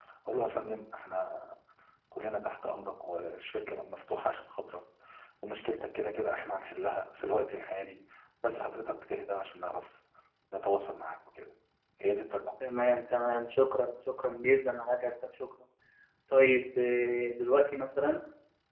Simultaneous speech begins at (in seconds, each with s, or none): none